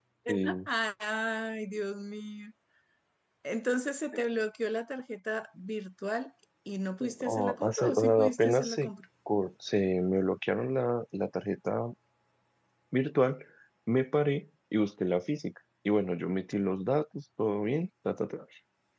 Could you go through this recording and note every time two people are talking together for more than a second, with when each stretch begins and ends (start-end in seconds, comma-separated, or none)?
7.2-8.9